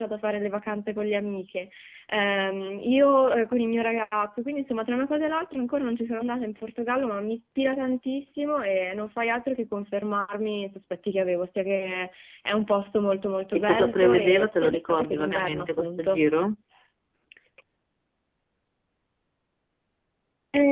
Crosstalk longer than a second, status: present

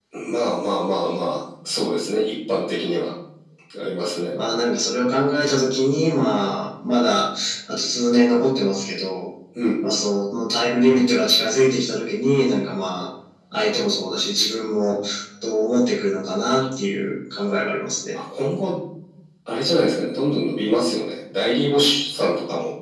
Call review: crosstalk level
none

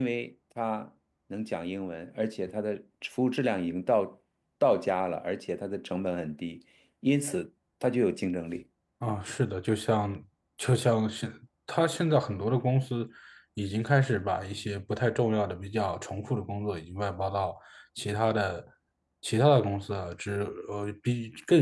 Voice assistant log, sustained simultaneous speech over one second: none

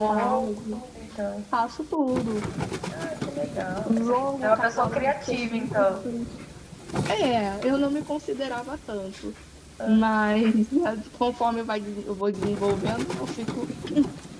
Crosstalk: present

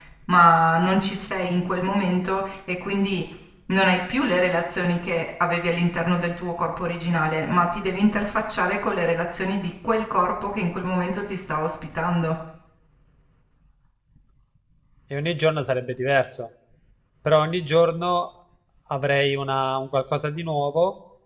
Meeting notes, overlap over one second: none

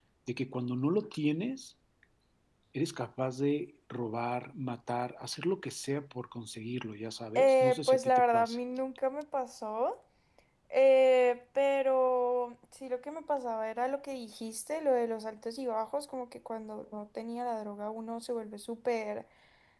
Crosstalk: present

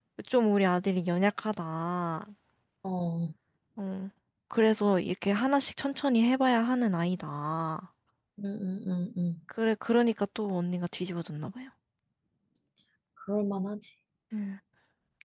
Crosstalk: none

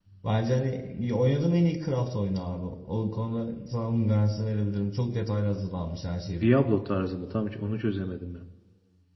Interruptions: none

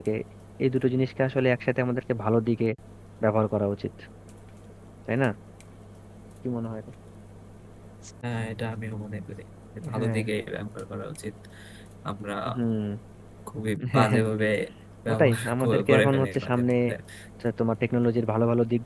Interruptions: present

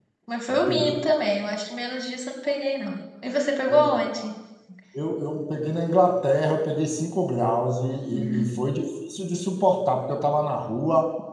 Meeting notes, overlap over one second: none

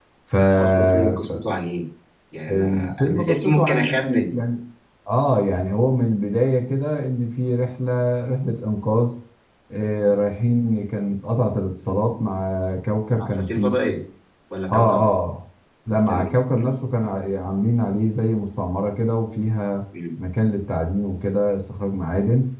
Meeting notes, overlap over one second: present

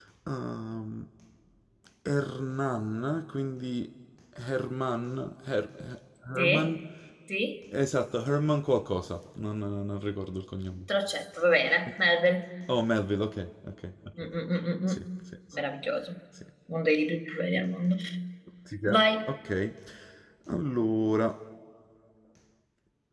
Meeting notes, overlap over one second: none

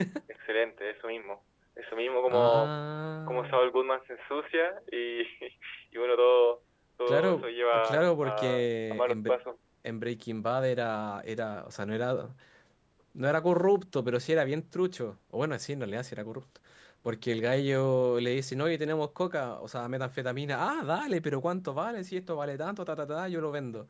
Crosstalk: present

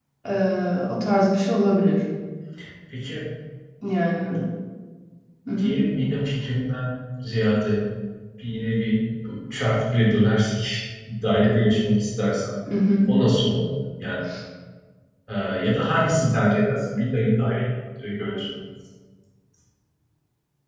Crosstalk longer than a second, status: none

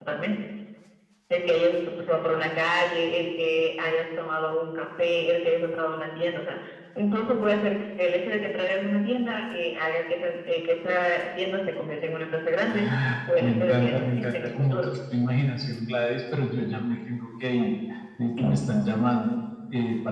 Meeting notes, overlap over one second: present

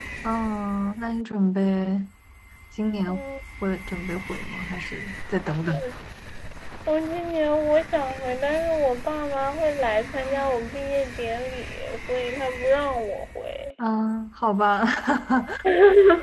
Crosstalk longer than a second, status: none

